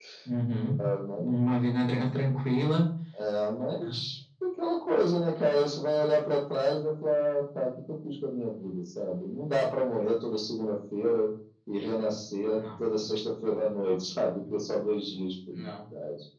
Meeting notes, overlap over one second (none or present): none